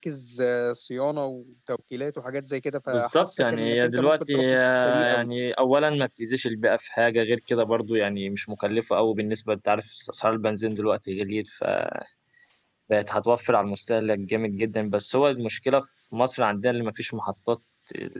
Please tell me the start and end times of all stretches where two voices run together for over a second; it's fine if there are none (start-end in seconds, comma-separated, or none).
2.9-5.3